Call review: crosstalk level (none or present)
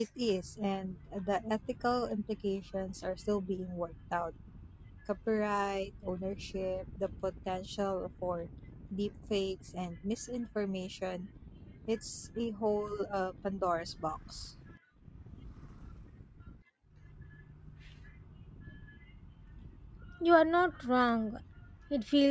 none